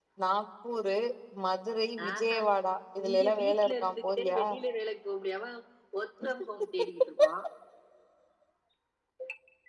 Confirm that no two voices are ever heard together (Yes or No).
No